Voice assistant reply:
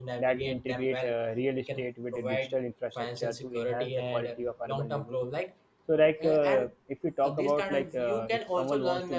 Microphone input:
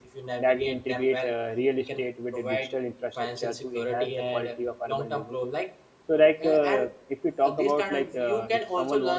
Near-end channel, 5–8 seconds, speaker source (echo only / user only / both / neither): echo only